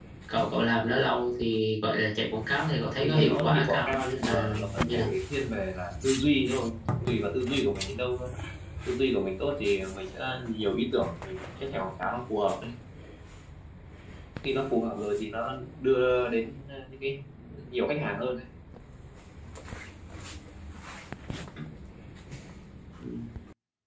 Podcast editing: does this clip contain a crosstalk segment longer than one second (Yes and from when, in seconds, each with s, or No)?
Yes, from 3.0 s